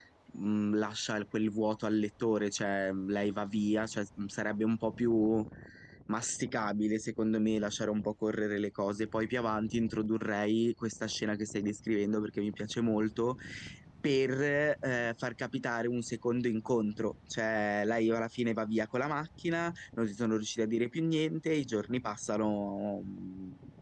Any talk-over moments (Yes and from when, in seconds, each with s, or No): No